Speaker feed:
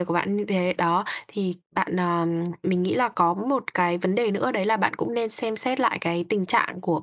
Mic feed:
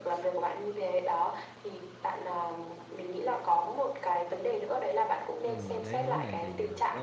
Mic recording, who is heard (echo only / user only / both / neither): both